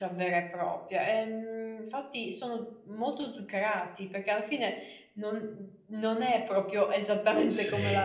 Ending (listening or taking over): taking over